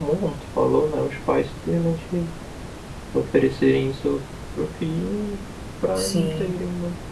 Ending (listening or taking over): listening